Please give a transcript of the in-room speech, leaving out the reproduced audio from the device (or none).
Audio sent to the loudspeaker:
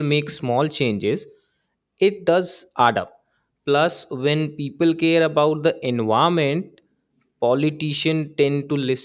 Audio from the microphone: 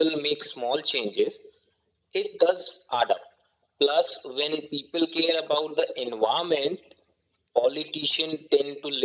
none